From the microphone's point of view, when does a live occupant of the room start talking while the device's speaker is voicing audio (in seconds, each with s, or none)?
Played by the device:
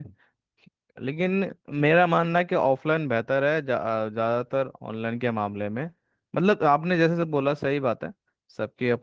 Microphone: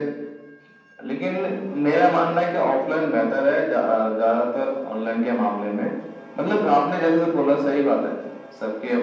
none